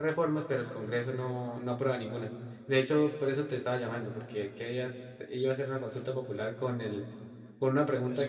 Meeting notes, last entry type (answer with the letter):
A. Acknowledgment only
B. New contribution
A